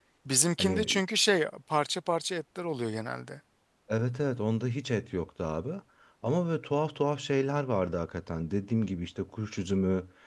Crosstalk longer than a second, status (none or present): none